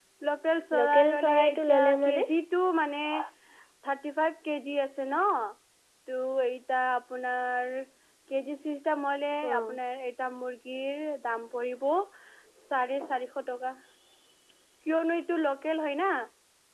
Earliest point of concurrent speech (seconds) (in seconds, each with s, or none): 0.8 s